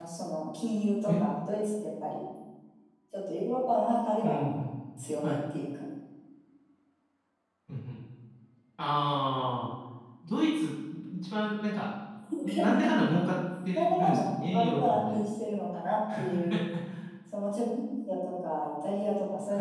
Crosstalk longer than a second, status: present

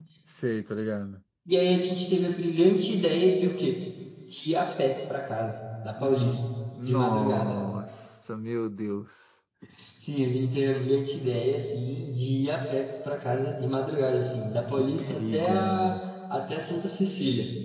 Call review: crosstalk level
present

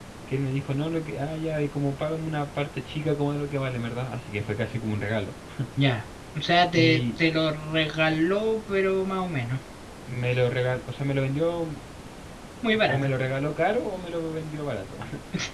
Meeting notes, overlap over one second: none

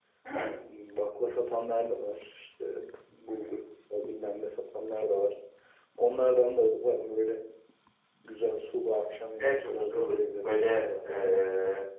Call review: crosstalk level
present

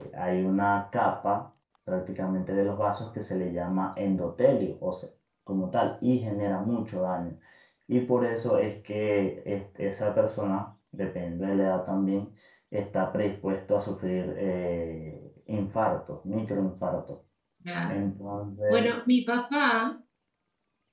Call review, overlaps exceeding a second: none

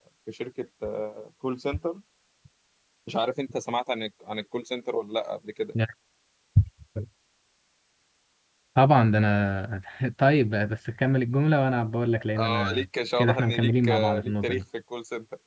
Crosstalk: present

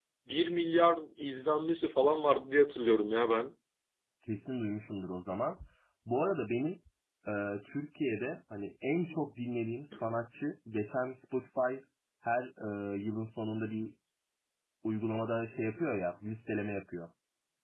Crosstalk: none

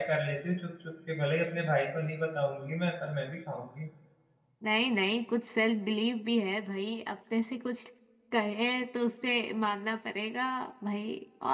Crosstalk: none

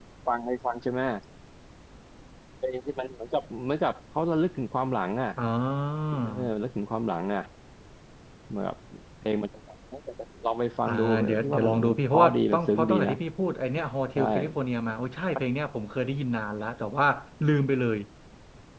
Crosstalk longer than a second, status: present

